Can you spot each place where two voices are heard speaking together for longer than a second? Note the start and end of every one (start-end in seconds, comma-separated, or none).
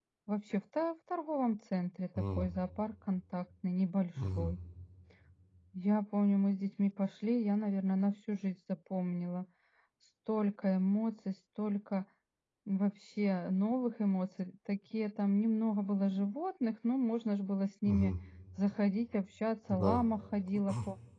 none